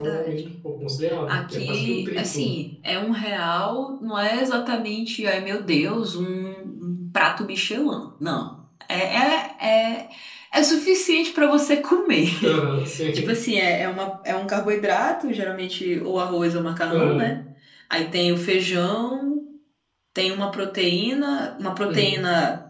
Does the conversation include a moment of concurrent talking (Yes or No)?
Yes